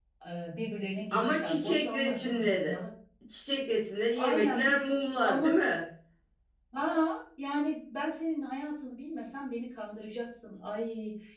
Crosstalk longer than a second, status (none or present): present